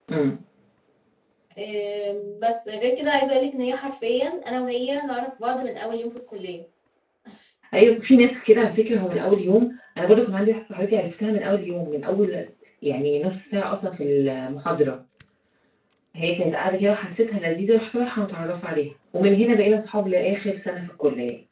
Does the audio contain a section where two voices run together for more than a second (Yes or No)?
No